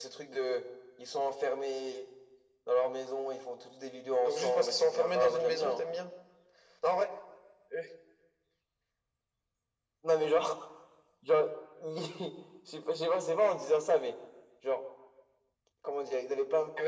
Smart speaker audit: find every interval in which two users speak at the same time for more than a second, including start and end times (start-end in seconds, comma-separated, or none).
4.2-5.9